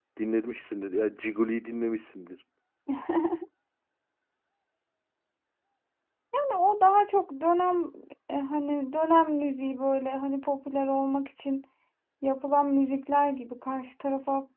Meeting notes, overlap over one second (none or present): none